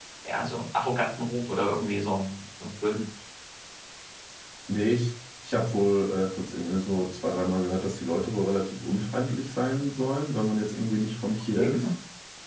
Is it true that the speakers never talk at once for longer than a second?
Yes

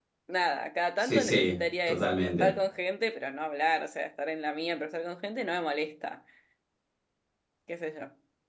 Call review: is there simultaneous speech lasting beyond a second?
Yes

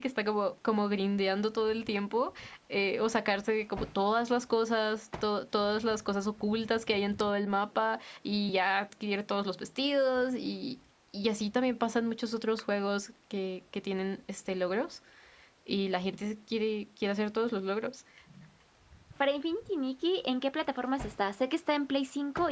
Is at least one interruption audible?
No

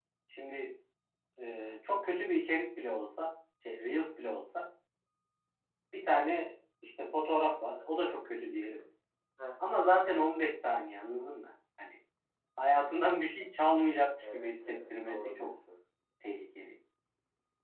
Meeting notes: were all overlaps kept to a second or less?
No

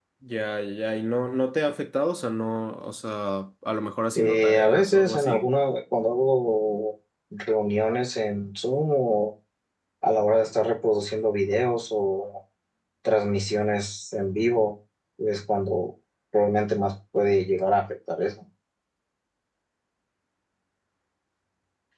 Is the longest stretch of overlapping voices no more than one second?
No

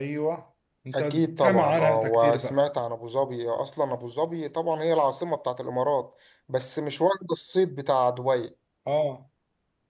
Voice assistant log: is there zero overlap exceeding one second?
No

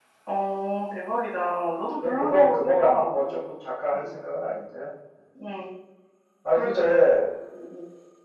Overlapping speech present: Yes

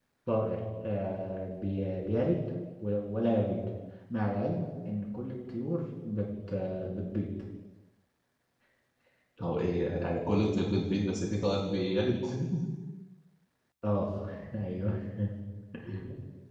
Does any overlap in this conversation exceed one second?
No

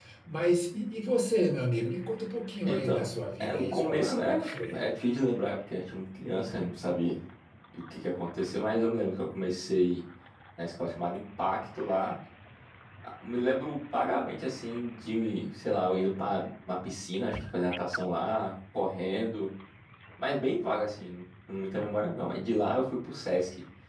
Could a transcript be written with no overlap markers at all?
No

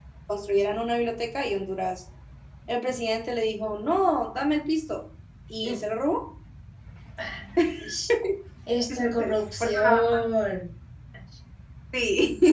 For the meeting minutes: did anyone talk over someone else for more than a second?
Yes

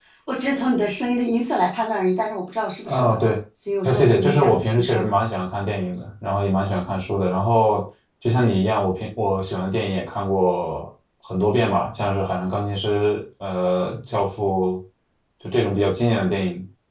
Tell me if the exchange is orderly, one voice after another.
No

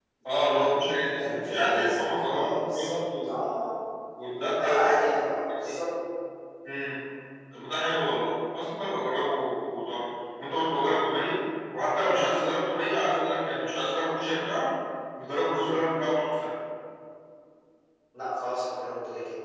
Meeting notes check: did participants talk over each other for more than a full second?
Yes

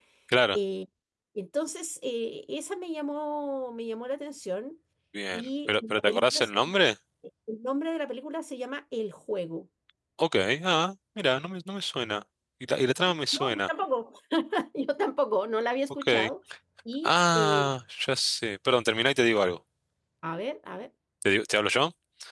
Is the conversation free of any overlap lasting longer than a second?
No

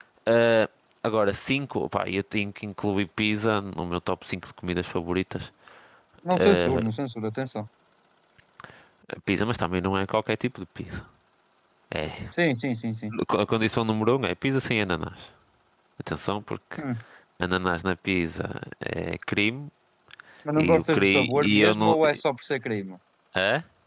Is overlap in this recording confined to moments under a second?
No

